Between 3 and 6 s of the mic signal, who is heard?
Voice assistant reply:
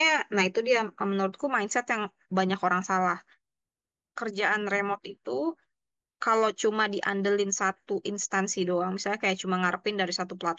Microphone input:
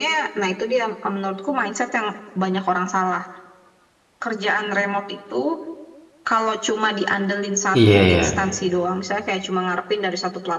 echo only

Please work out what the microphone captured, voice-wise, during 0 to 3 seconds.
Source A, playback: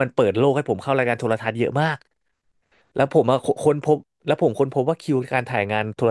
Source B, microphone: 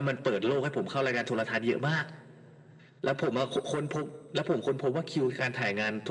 echo only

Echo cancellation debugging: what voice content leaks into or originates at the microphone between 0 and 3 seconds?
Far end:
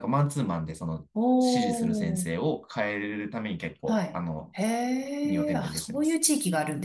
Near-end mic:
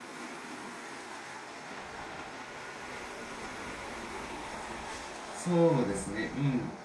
neither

